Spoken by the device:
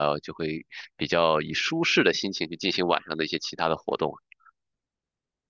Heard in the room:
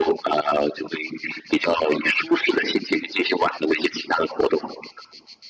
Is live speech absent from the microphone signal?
Yes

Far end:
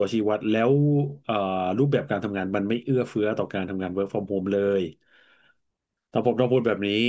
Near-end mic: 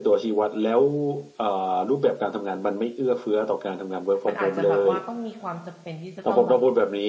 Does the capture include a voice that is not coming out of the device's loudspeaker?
Yes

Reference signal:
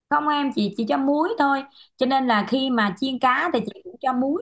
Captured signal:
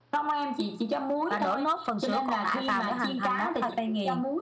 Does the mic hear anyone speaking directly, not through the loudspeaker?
Yes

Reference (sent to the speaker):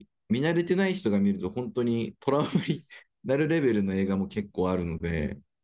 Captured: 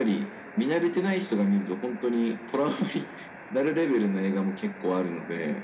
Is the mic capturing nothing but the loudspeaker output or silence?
Yes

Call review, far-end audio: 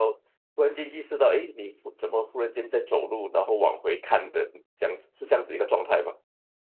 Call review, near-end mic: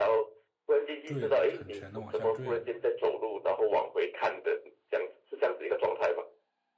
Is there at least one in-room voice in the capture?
Yes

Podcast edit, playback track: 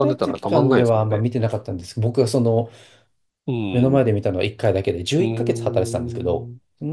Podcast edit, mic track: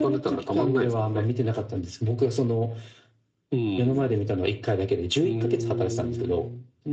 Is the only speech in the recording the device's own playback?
Yes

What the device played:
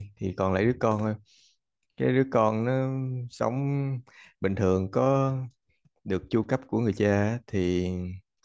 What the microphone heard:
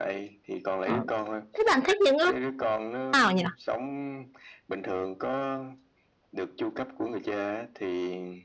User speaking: Yes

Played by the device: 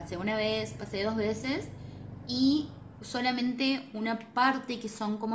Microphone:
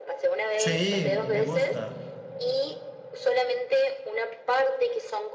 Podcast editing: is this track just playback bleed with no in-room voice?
No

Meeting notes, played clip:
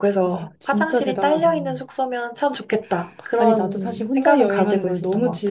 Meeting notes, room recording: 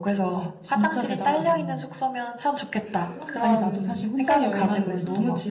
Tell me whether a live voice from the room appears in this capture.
Yes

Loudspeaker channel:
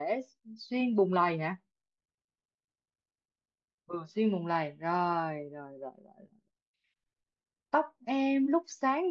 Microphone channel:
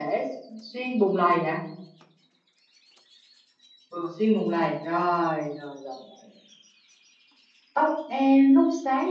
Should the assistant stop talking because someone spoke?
No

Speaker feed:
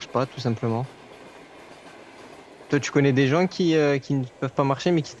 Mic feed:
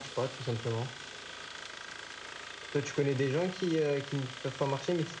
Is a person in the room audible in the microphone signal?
No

